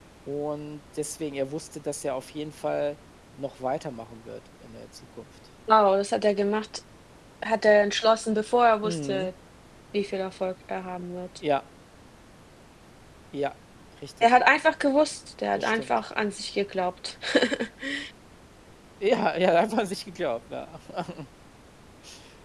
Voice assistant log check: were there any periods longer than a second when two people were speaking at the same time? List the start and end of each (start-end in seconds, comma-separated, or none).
none